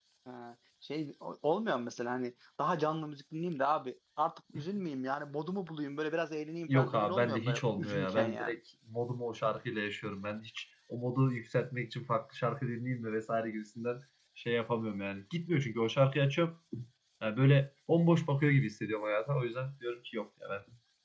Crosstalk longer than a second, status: present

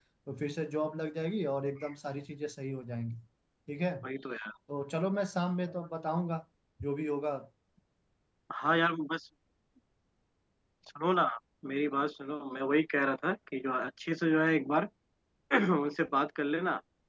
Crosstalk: none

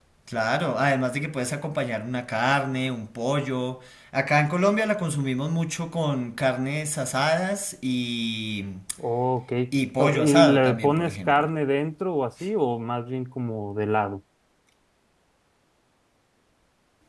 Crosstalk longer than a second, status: present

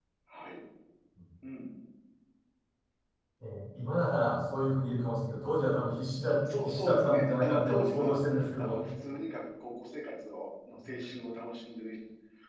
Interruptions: present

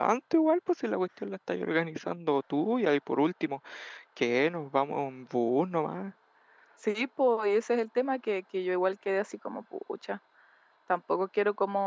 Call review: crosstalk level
none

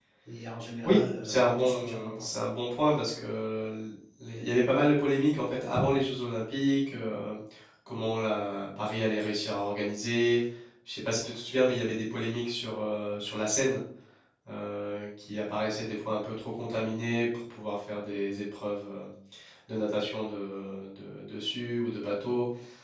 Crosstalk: present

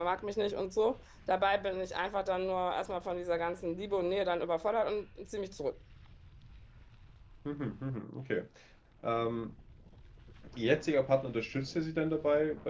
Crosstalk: none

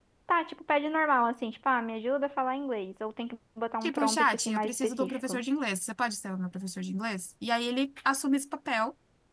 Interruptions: present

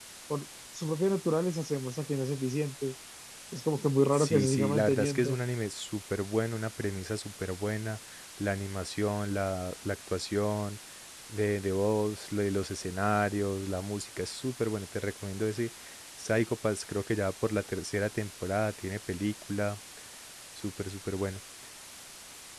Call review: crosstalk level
present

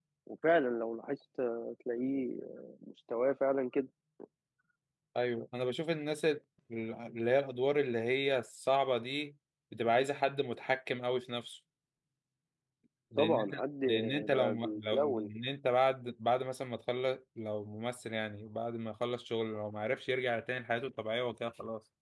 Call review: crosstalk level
present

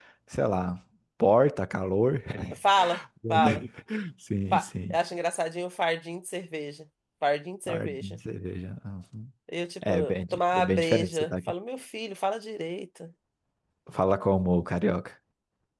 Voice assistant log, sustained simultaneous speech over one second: present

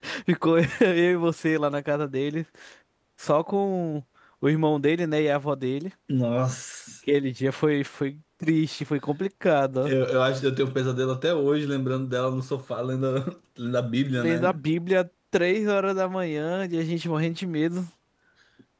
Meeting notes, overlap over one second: none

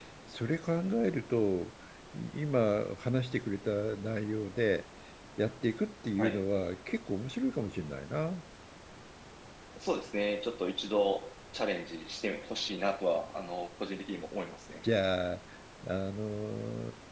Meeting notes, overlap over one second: none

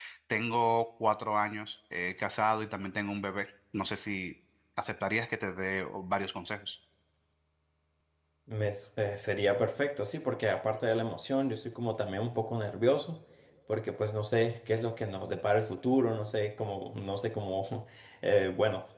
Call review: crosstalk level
none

